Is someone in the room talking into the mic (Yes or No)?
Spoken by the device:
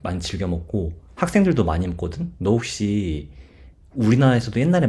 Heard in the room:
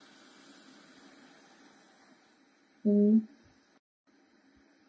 Yes